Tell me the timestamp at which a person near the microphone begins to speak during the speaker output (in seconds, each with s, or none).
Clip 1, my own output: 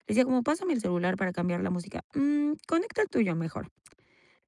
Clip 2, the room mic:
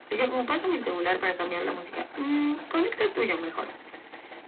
none